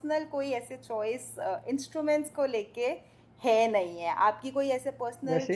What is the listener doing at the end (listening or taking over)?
taking over